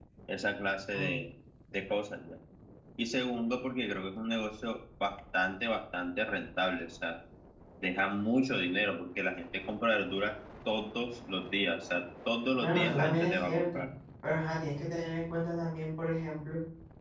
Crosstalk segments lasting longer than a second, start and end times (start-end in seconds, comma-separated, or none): 12.6-13.8